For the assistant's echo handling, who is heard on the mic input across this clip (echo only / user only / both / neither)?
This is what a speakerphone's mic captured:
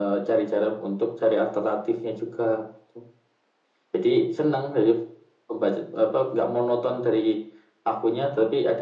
echo only